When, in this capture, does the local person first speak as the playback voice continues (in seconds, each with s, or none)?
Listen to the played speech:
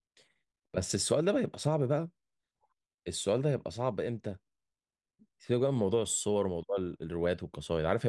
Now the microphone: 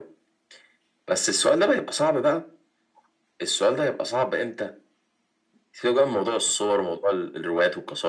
none